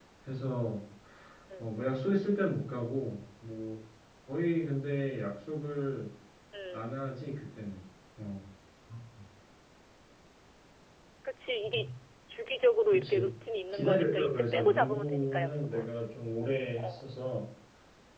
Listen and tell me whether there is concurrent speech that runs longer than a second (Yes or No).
Yes